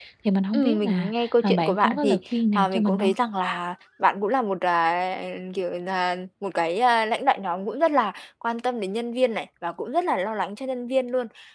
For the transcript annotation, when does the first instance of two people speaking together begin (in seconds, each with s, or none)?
0.5 s